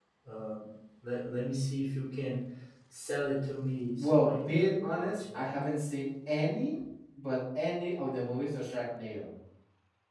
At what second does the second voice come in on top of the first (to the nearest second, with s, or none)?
4 s